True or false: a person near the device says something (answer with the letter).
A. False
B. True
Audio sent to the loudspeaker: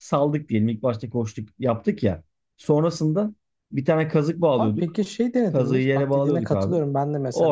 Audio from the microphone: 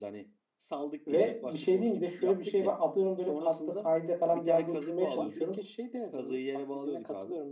B